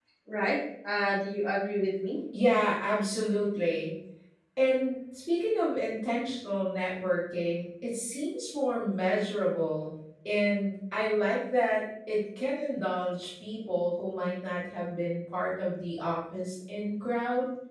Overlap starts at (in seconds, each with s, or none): none